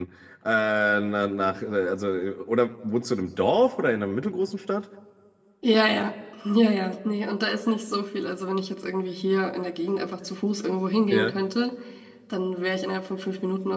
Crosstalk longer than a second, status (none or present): none